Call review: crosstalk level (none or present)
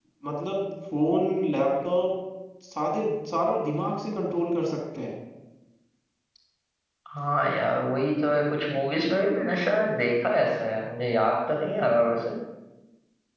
none